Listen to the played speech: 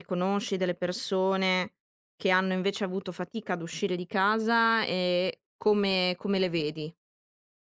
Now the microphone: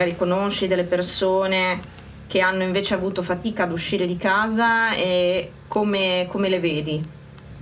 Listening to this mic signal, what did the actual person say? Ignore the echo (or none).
none